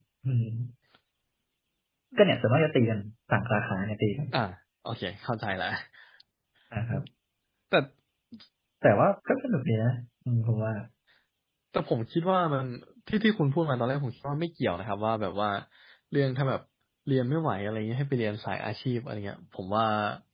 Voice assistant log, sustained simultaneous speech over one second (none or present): none